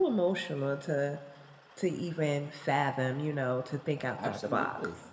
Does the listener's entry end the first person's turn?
Yes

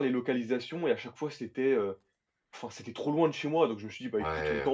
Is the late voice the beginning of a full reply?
Yes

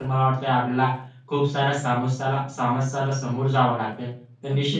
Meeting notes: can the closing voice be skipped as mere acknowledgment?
Yes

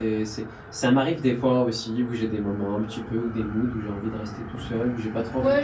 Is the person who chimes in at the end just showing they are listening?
No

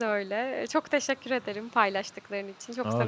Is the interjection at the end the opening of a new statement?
Yes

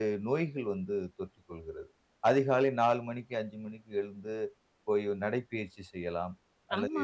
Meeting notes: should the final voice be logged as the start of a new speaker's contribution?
Yes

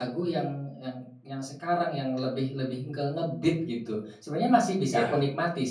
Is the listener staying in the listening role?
Yes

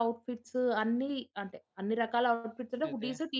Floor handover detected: No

